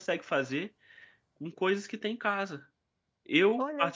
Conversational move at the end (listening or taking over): listening